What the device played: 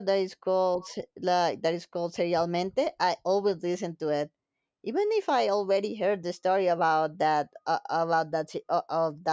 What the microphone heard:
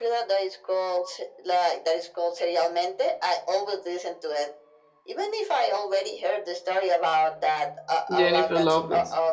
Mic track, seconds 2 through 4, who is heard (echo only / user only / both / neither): echo only